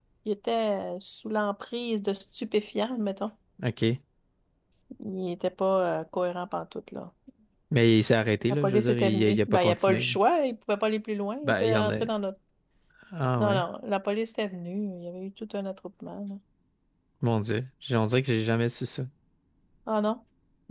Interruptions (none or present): present